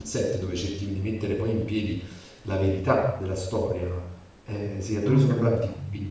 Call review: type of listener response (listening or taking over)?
listening